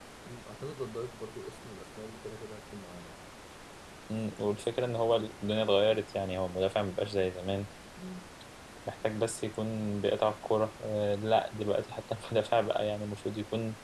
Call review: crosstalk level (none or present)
none